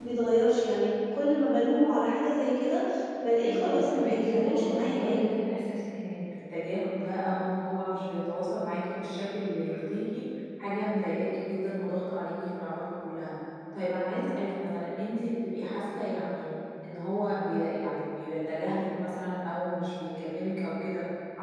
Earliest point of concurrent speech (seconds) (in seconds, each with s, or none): 3.4 s